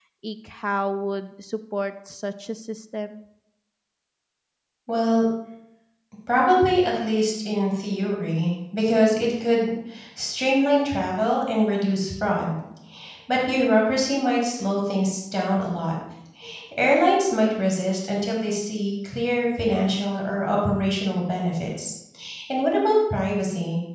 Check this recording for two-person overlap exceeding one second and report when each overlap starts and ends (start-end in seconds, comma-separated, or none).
none